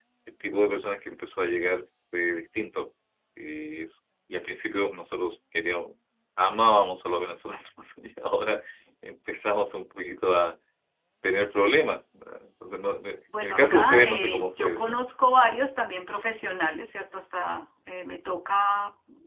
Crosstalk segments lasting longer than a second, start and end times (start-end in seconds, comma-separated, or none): 13.4-15.0